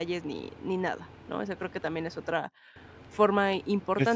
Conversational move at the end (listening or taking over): taking over